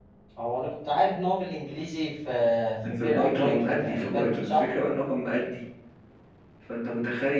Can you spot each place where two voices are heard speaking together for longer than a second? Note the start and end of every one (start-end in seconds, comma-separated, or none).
2.9-4.7